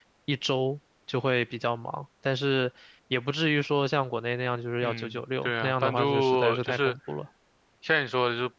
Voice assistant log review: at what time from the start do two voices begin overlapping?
4.8 s

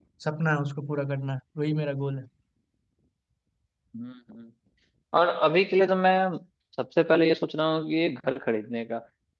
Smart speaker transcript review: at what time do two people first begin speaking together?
none

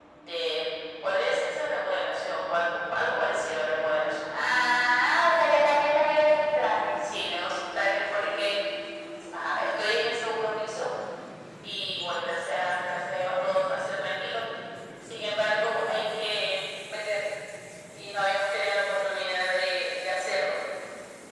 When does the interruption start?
none

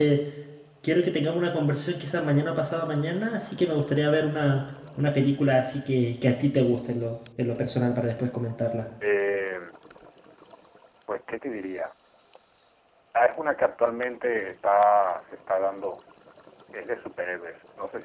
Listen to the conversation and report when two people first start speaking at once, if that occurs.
none

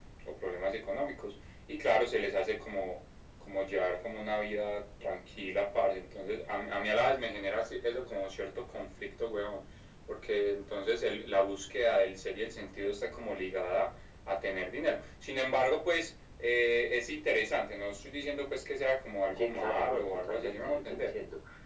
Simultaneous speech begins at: 19.4 s

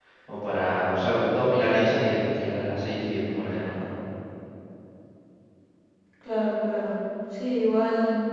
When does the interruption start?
none

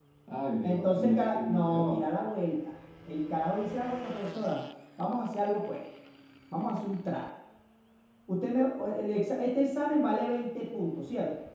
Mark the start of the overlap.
0.6 s

